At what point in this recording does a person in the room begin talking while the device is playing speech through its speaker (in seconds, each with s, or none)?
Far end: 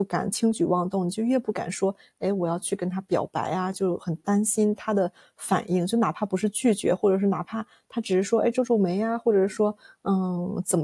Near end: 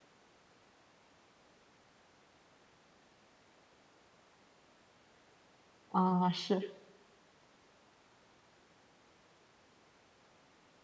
5.9 s